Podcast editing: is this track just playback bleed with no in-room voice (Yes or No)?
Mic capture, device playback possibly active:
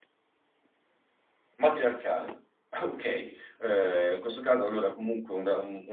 No